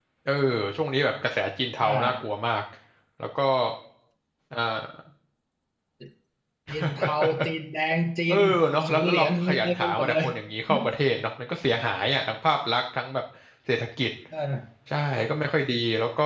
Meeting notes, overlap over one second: present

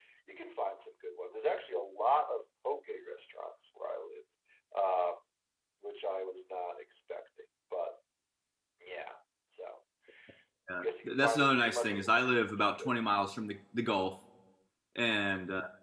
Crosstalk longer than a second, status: present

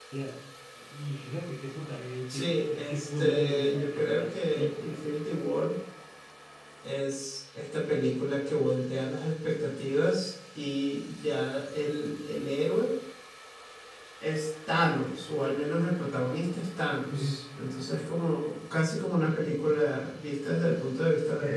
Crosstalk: present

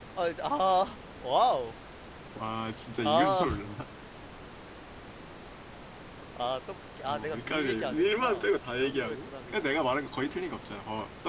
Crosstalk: present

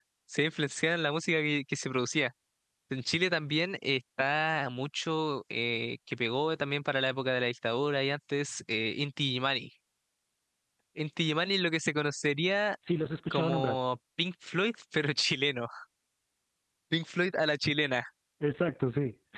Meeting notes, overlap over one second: none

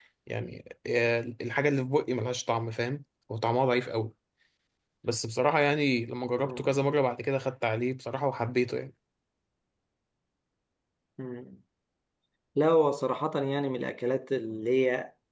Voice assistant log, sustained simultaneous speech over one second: none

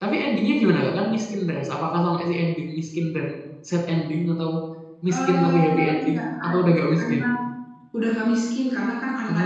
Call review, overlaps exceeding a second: present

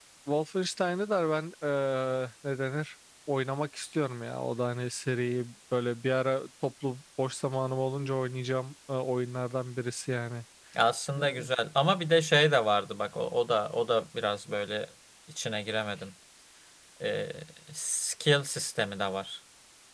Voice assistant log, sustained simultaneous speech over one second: none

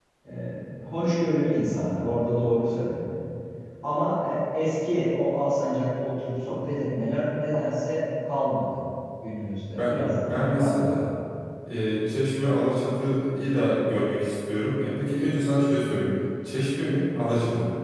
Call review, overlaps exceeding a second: present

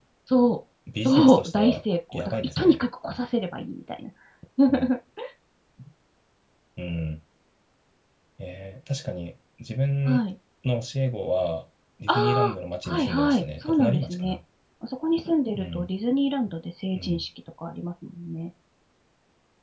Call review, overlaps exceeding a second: present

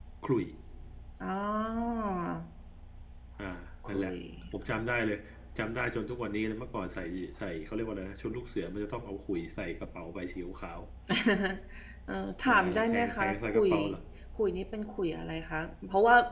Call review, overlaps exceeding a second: present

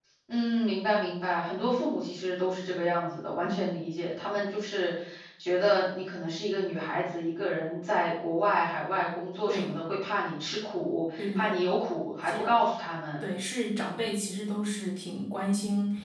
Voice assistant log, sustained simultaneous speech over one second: none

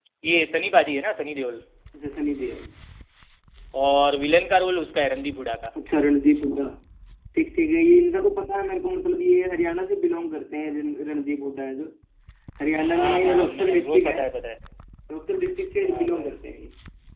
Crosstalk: present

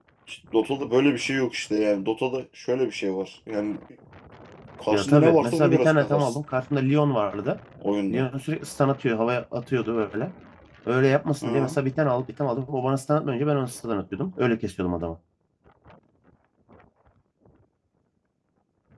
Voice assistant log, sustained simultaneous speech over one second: present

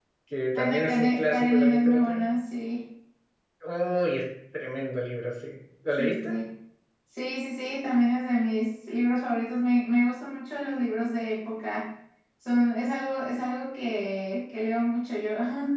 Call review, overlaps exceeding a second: present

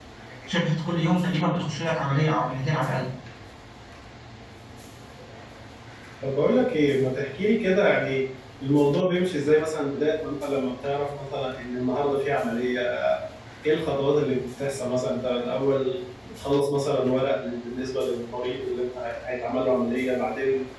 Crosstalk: none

